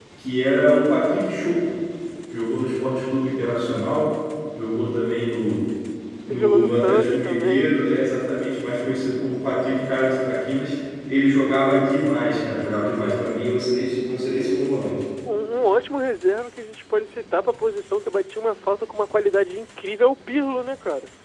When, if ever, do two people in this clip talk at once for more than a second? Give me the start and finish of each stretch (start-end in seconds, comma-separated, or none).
6.3-7.8